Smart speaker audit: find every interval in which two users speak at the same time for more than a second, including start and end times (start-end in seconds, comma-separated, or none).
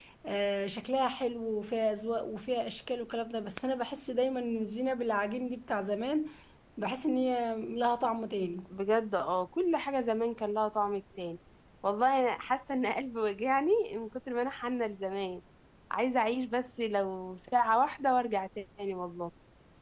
none